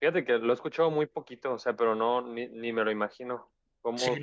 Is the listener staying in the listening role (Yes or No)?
No